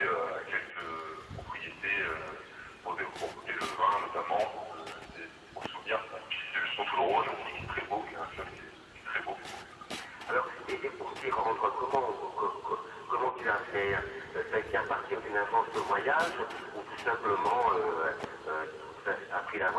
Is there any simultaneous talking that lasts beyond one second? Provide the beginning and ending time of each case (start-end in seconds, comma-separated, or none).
none